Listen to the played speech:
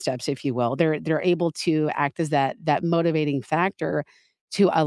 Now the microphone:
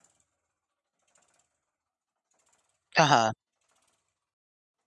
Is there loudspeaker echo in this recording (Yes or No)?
No